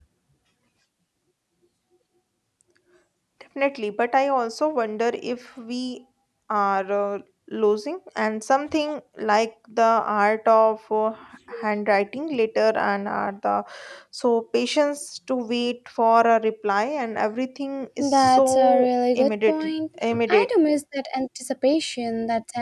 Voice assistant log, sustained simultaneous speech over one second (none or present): present